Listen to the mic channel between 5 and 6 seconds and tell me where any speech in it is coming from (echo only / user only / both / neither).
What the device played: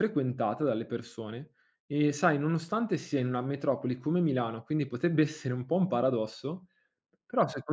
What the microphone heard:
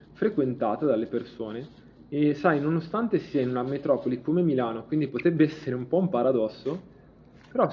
echo only